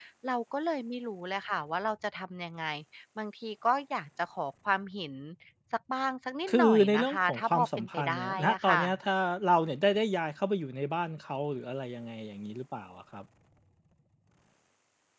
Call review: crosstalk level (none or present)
present